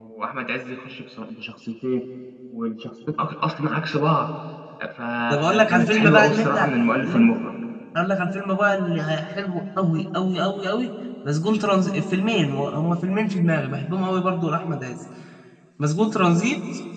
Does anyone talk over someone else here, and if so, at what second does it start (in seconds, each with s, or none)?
5.3 s